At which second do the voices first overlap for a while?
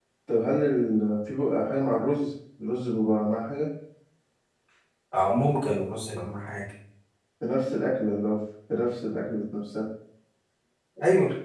none

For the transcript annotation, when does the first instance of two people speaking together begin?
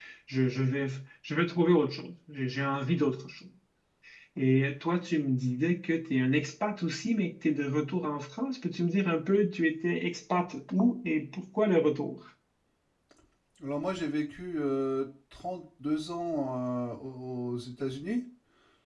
none

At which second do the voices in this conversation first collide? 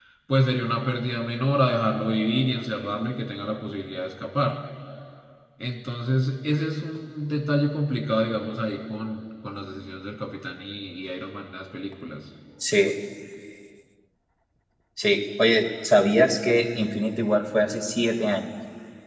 none

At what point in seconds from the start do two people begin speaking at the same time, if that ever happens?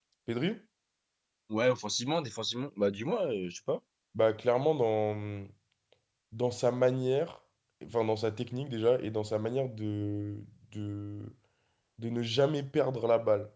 none

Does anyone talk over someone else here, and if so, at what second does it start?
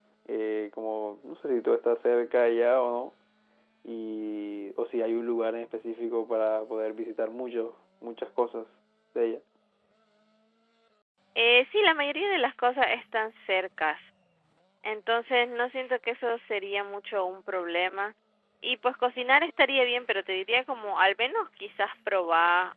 none

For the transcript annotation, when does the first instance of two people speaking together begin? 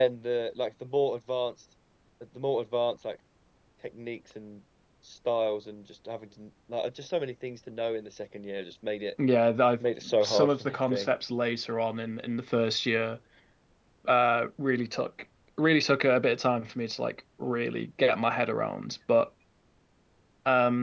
10 s

